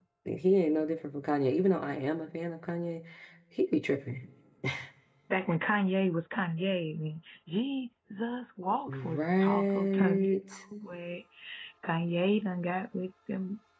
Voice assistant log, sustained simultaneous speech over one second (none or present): present